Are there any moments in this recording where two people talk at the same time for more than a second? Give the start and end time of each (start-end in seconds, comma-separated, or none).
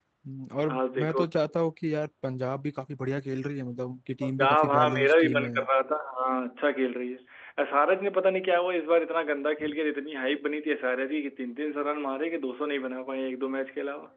4.2-5.5